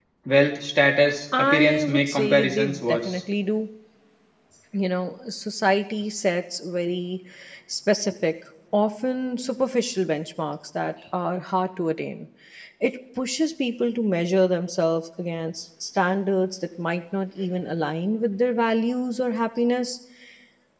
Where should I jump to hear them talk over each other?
1.3 s

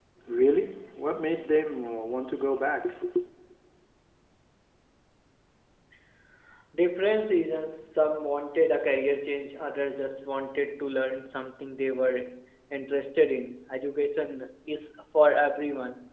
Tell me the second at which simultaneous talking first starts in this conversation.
none

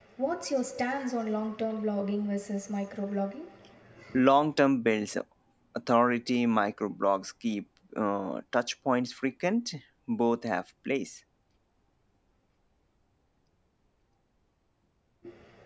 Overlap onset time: none

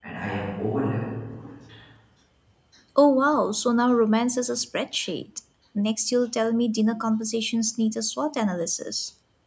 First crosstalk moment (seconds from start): none

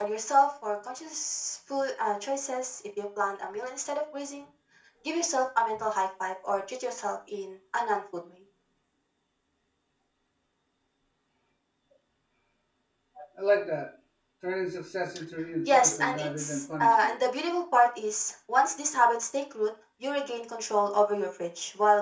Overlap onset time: 15.7 s

